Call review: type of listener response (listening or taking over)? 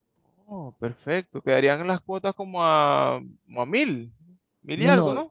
taking over